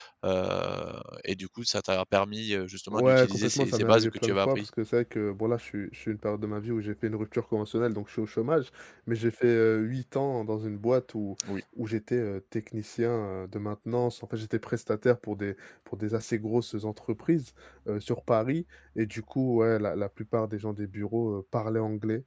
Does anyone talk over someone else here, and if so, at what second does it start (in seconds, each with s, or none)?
2.9 s